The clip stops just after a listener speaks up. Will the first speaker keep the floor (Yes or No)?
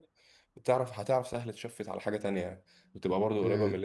No